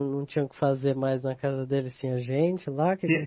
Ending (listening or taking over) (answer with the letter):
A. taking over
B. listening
A